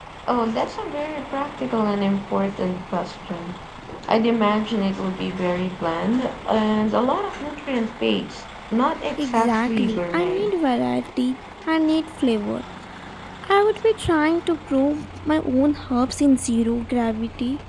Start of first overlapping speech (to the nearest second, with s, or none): 9 s